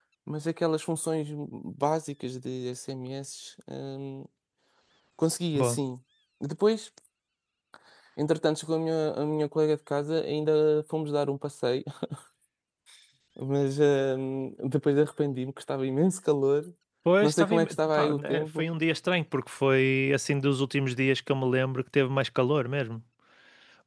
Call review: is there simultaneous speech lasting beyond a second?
Yes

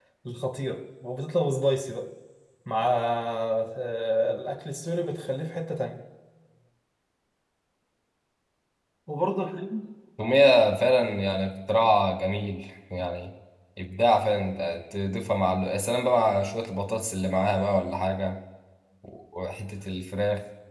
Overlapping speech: No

